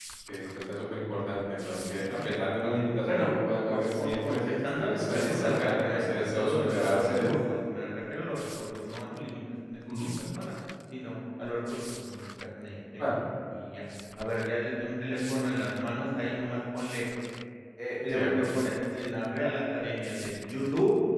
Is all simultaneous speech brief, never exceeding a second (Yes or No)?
No